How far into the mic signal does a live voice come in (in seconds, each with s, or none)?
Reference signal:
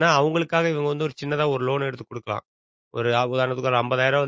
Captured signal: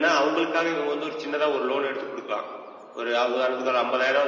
none